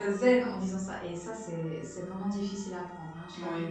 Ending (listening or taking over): taking over